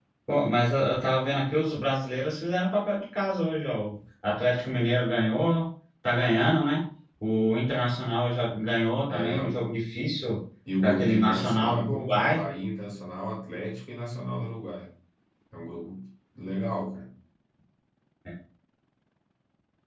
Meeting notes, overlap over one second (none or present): present